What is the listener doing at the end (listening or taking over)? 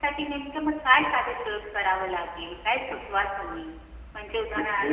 listening